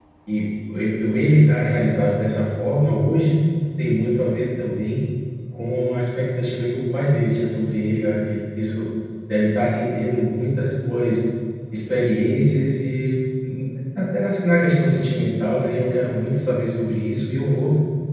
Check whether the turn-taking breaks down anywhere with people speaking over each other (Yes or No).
No